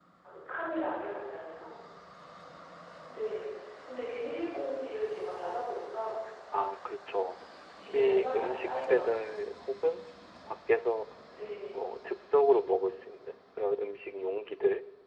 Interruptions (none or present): present